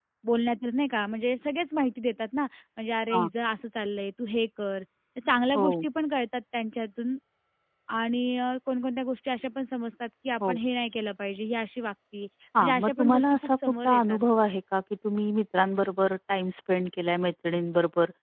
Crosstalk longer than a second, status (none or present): present